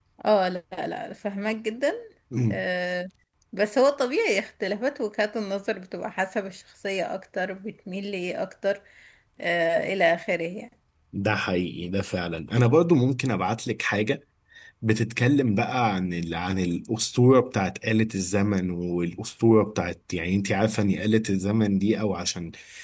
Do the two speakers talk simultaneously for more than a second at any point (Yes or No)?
No